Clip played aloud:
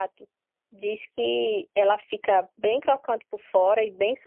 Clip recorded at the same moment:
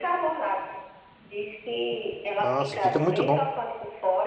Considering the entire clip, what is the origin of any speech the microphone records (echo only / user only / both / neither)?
both